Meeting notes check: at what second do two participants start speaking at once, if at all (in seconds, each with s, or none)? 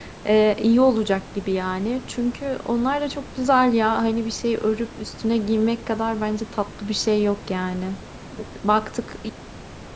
none